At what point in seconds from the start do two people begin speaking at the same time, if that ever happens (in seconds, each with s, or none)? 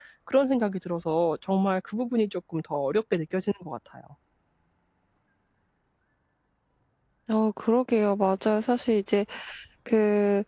none